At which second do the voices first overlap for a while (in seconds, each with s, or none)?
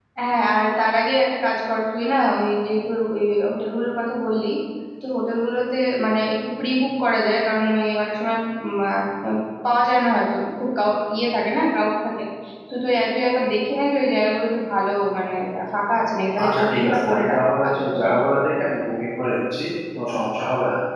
16.4 s